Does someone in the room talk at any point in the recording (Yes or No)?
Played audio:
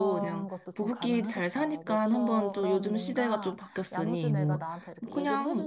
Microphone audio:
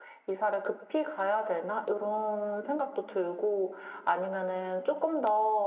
Yes